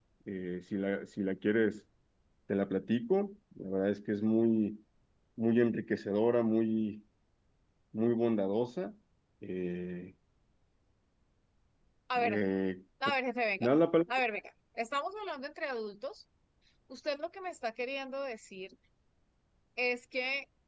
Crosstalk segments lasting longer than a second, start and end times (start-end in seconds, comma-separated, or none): none